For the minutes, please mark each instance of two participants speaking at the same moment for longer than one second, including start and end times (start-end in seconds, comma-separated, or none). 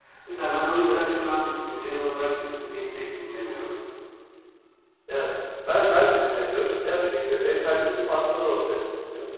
none